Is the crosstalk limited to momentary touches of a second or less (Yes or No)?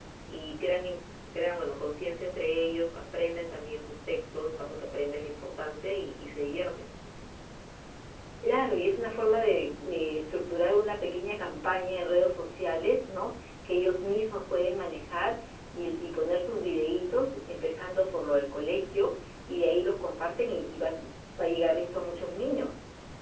Yes